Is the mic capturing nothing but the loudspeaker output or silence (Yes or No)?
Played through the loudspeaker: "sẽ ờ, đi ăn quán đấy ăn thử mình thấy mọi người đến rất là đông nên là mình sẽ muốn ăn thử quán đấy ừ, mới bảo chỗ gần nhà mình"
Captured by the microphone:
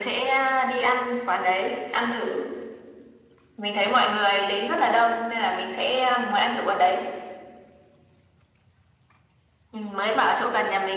Yes